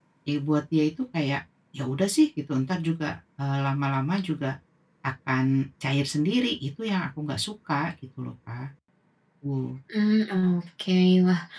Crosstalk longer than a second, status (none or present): none